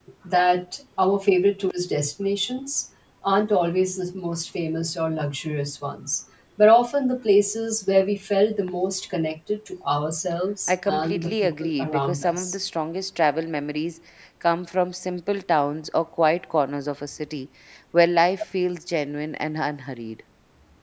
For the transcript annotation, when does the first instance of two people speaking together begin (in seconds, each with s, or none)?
10.7 s